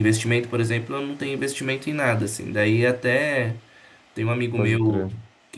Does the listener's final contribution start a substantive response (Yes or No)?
No